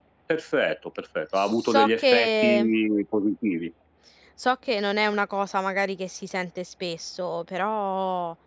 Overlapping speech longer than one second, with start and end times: 1.4-2.6

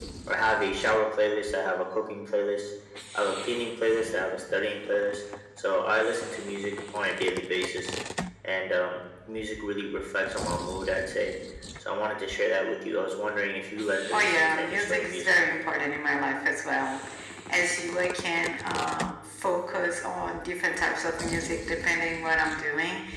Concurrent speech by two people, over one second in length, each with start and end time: 14.1-15.4

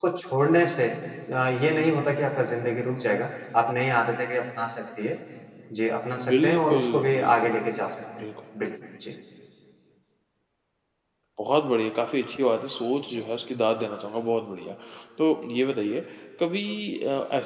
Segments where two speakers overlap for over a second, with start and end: 6.3-7.5

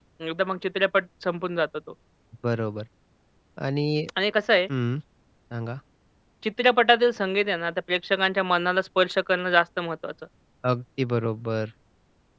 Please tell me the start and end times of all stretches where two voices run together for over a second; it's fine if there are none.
none

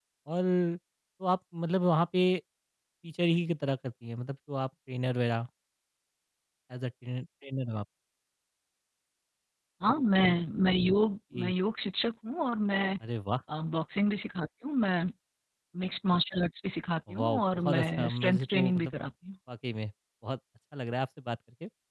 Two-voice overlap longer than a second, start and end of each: 17.1-18.9

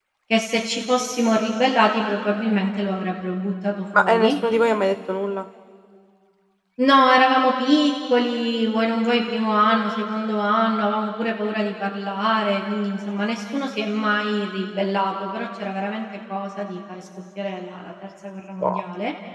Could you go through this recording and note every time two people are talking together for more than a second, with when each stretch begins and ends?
none

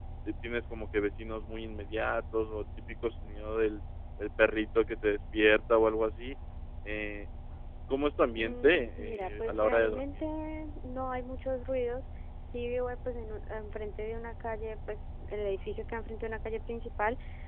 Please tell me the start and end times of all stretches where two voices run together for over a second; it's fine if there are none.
8.4-10.2

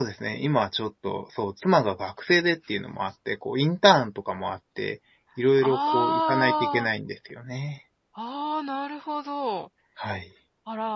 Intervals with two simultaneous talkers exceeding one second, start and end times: 5.6-6.9

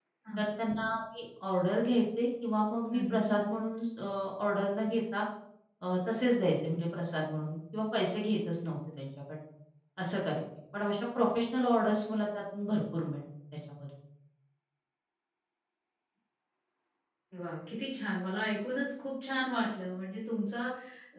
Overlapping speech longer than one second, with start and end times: none

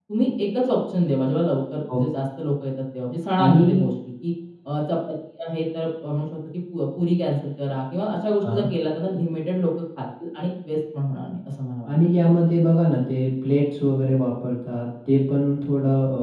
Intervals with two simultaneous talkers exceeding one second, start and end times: none

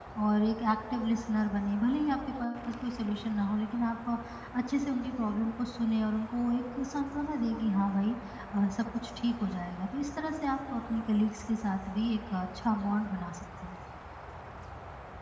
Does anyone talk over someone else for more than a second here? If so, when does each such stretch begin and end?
none

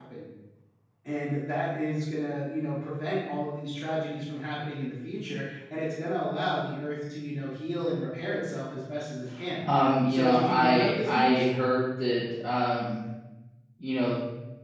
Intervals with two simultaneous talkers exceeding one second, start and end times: 10.1-11.4

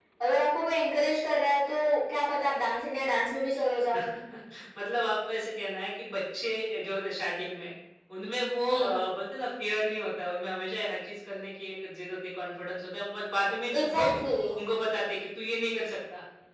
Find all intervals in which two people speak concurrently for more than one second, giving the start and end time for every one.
none

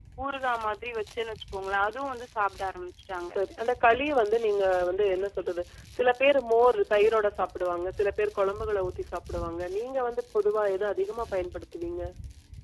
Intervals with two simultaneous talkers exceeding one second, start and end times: none

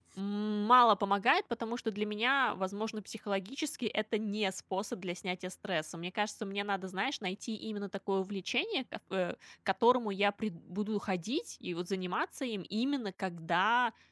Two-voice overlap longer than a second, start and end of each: none

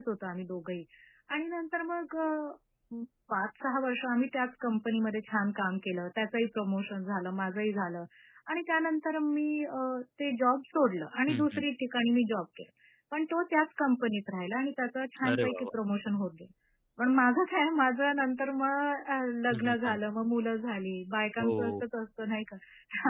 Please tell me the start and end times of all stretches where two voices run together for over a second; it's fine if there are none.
none

